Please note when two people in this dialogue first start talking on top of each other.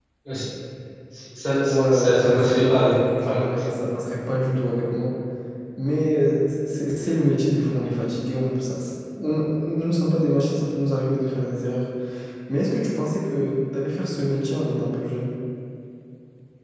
2 s

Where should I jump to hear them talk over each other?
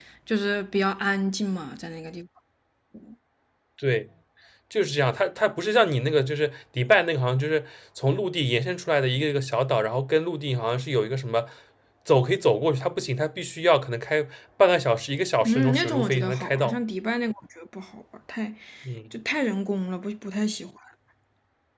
15 s

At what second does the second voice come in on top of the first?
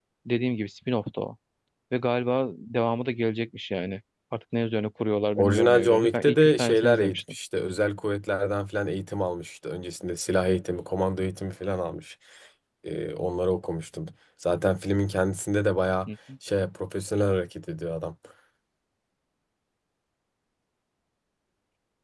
5 s

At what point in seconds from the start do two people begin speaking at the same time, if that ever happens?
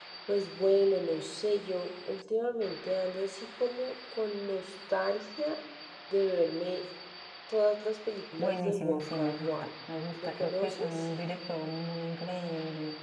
8 s

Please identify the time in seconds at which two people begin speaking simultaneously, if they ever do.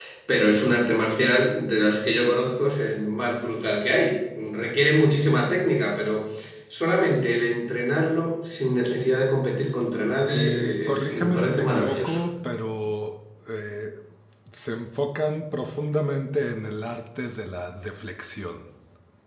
10 s

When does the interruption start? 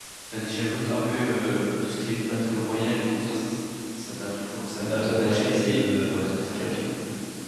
5 s

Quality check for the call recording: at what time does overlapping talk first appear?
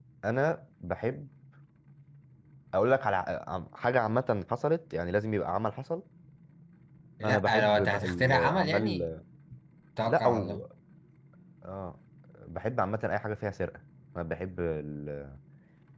7 s

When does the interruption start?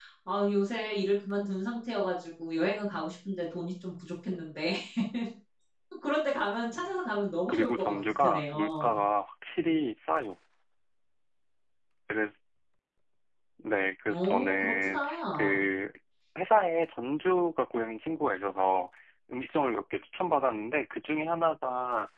7 s

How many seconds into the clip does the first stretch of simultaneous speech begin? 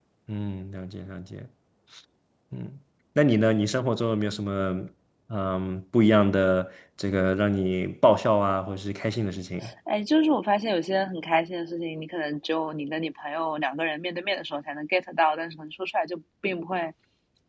none

